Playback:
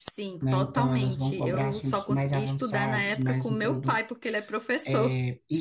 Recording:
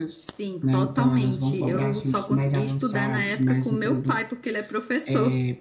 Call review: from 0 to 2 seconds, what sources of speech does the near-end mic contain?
echo only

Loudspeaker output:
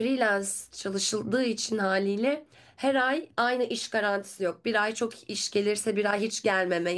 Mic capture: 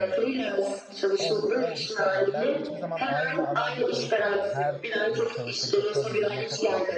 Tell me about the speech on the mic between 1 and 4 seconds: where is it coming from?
both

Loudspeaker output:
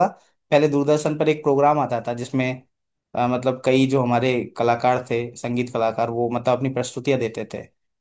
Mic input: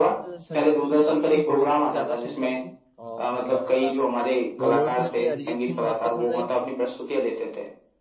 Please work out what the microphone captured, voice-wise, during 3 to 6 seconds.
both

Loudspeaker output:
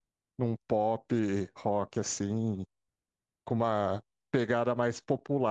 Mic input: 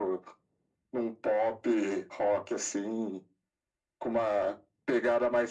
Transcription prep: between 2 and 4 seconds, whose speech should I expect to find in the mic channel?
echo only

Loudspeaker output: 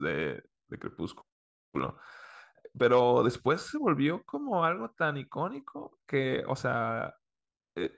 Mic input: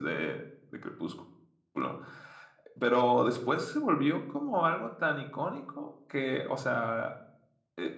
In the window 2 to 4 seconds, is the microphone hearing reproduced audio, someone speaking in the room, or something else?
echo only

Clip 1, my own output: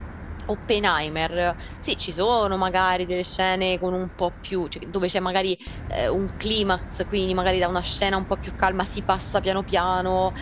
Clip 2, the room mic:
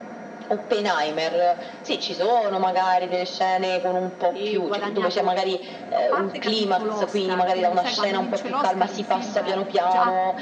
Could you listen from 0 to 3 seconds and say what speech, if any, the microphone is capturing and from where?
echo only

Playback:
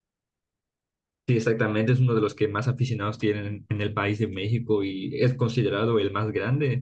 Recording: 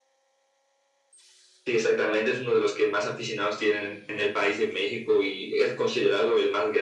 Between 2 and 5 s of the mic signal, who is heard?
echo only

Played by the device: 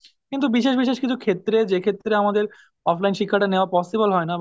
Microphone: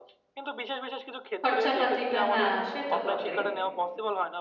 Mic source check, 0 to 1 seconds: echo only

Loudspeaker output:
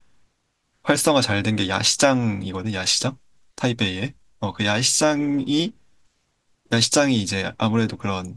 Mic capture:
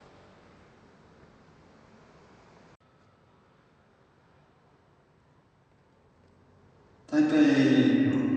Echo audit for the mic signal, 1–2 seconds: neither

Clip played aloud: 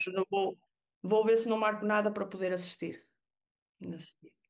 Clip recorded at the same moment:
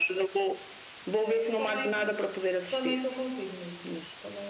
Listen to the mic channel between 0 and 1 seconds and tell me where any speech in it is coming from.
echo only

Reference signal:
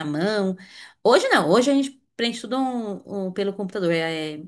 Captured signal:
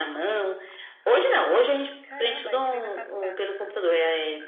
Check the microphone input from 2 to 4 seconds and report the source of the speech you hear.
both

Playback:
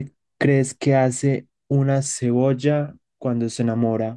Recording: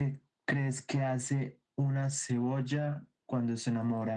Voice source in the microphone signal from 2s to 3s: echo only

